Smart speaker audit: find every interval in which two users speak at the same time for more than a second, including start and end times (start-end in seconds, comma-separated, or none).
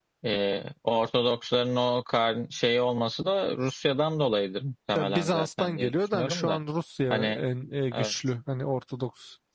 5.0-6.6